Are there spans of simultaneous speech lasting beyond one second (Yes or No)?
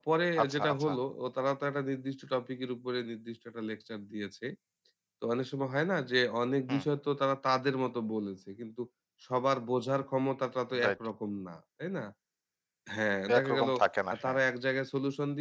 No